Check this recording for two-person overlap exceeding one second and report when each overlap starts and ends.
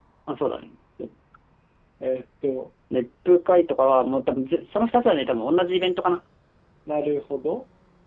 none

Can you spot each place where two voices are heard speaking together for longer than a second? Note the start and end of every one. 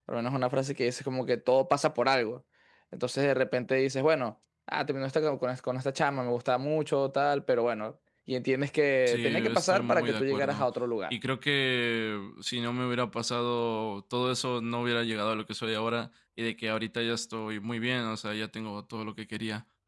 9.1-10.7

